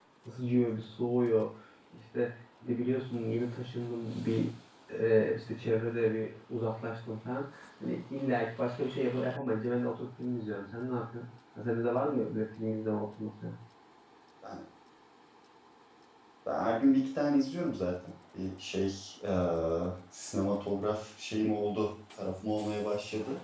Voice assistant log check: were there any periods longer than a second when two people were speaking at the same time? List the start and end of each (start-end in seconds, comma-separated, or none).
none